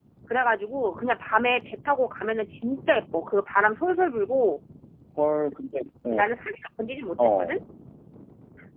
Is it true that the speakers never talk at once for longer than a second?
Yes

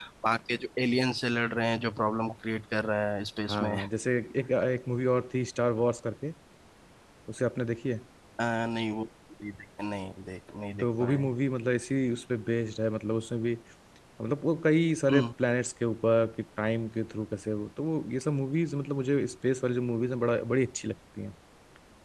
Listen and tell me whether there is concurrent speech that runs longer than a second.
No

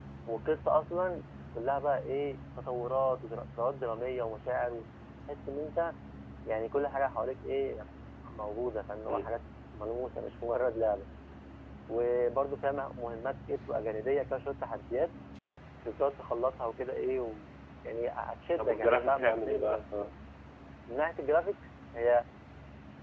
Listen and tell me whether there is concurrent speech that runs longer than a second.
Yes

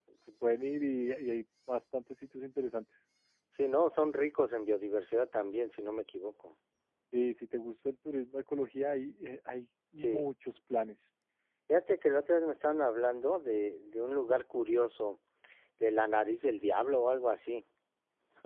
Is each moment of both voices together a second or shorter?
Yes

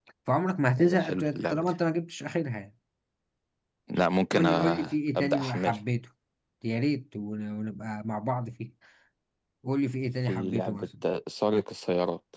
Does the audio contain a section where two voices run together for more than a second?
Yes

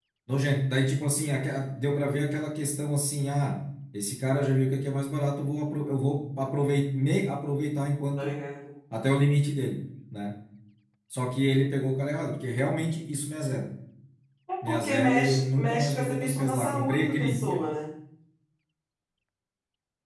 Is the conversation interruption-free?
No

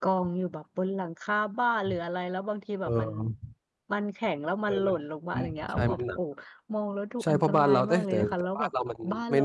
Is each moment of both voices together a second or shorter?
No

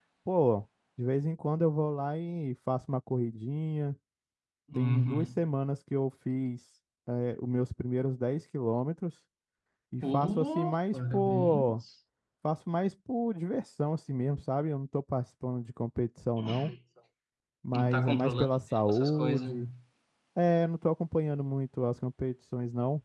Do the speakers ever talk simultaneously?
Yes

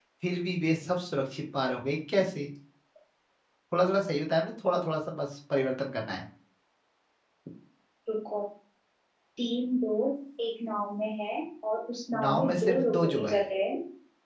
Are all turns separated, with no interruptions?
No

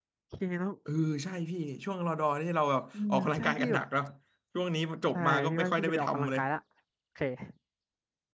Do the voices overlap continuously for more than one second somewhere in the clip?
Yes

